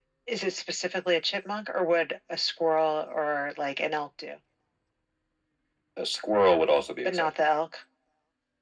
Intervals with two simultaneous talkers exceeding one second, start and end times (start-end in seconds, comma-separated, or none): none